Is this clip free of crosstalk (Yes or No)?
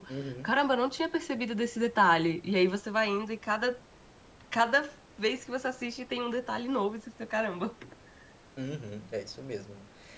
Yes